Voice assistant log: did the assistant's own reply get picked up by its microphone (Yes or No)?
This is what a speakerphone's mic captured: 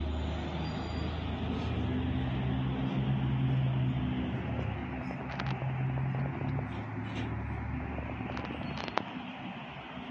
No